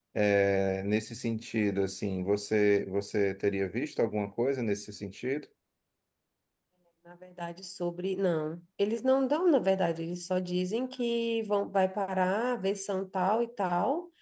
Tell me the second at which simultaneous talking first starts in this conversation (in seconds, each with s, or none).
none